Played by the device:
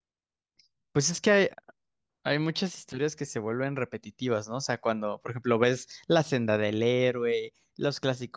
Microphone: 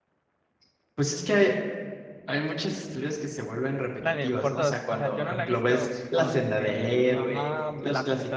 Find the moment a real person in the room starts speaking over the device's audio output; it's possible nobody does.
4 s

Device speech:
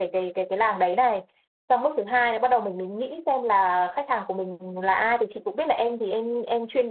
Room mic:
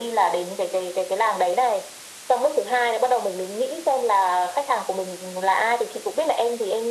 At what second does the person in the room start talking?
none

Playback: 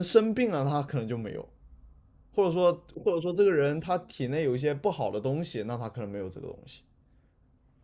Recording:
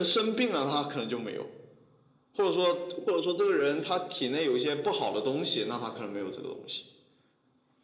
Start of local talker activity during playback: none

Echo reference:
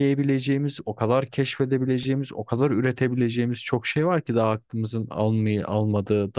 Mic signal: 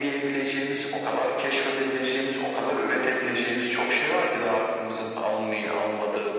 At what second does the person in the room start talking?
none

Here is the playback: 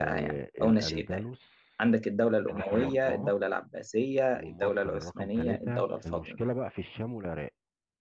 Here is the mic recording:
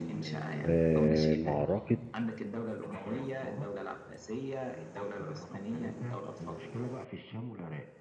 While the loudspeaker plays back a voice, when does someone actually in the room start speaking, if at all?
1 s

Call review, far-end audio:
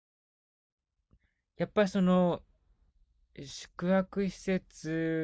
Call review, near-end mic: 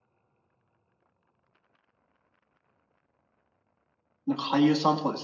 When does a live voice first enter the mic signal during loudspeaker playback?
4 s

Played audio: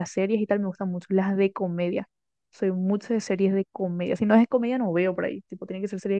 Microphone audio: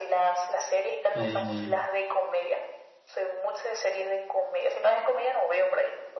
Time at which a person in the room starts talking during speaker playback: 1 s

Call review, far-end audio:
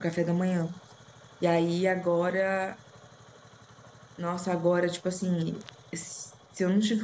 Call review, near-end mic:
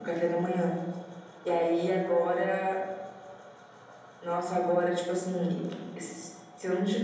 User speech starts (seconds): none

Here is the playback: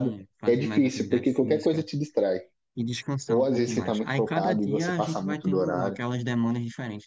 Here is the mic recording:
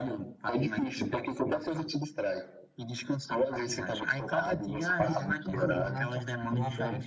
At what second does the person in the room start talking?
5 s

